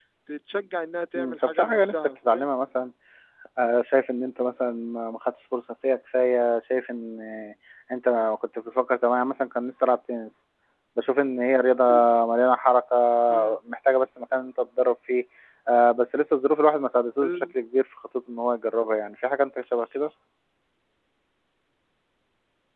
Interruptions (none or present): present